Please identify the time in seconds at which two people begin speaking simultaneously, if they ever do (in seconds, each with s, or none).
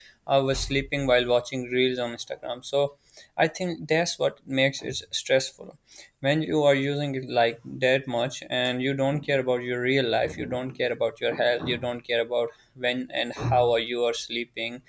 none